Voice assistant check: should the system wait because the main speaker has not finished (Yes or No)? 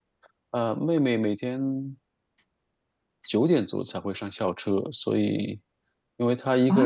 No